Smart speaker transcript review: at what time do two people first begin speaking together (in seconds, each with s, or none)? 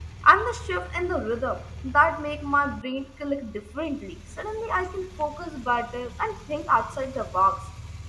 none